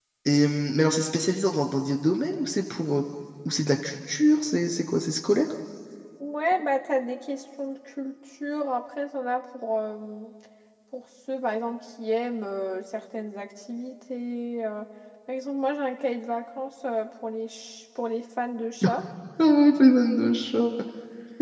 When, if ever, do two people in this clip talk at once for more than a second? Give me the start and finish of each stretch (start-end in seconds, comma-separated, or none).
none